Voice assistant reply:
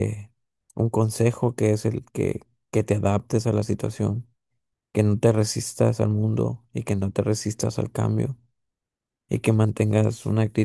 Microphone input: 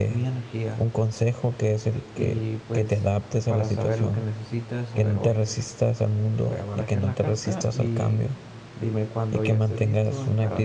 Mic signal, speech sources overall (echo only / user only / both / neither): both